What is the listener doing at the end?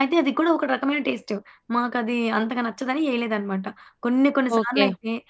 listening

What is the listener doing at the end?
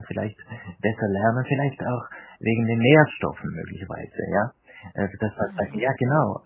listening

